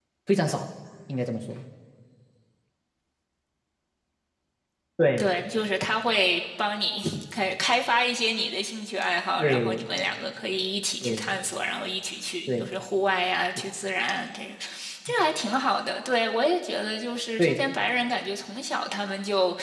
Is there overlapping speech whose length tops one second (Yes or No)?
No